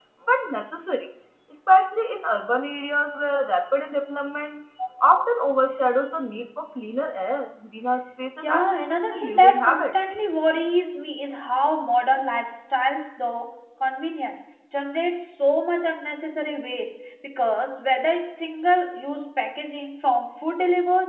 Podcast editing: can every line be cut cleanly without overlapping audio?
No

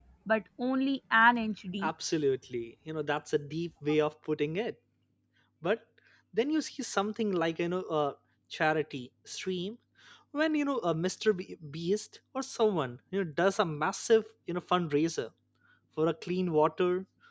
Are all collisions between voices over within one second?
Yes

